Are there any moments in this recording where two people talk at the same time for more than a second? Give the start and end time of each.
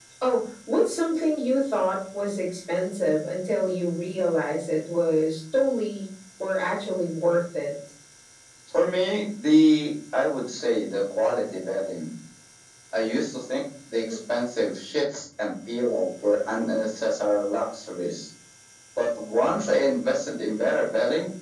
none

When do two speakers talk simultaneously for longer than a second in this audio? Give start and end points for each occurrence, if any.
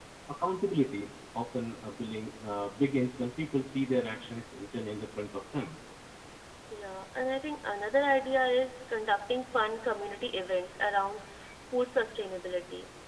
none

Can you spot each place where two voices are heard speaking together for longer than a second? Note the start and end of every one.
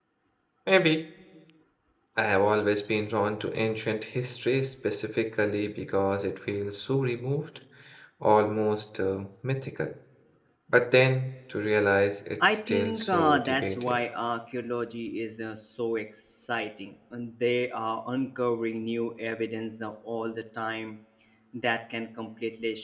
12.4-14.0

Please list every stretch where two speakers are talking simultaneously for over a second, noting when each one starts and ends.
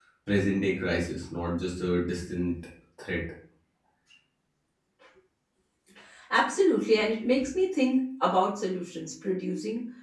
none

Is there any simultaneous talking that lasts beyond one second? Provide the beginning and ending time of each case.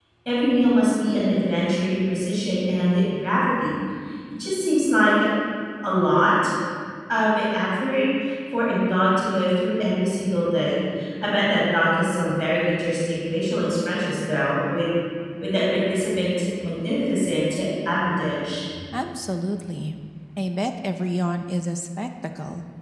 none

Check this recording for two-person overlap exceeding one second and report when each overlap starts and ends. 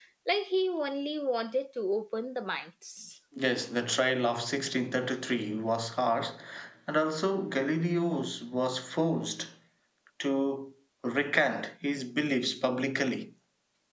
none

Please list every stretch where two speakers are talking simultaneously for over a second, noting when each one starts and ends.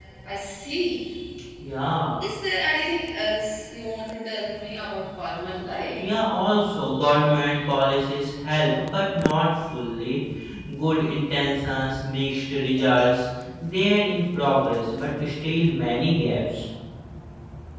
none

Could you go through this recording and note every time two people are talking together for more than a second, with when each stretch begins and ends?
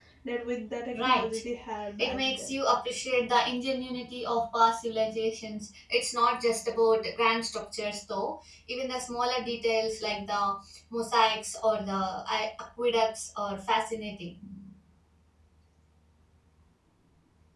none

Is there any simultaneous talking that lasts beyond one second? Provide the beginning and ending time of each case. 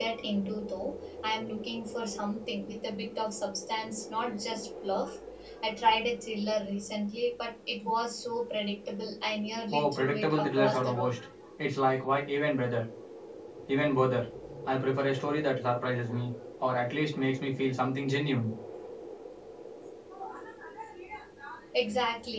9.7-11.2

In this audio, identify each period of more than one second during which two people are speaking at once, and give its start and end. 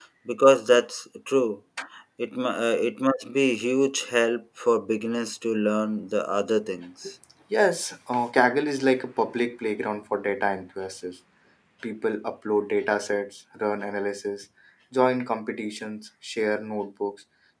none

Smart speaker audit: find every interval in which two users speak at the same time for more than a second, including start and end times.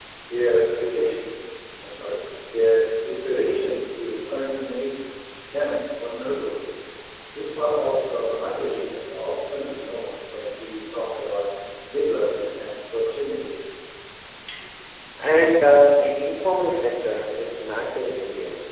none

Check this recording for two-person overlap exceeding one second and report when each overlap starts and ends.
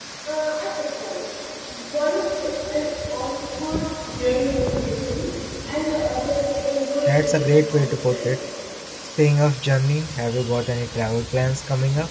7.0-8.3

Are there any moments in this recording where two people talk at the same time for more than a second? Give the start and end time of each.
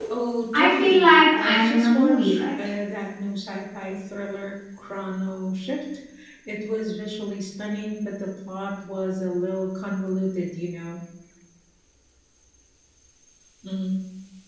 0.6-2.5

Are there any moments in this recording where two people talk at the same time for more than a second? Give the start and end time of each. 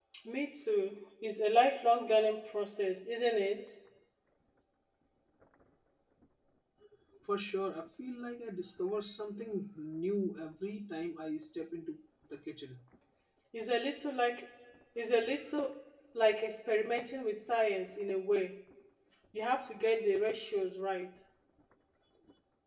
none

